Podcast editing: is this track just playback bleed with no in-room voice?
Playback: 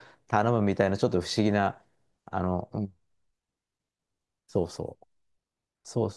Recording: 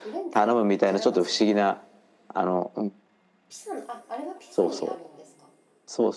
No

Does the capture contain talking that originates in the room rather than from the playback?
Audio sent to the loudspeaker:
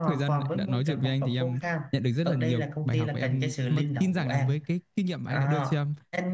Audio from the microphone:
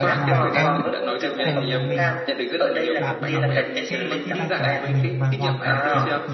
Yes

